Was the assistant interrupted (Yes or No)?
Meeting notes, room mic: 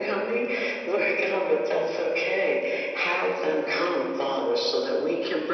No